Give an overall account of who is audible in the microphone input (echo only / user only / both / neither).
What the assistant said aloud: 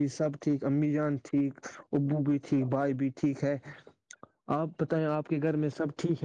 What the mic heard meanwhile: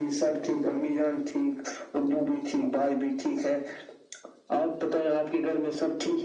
echo only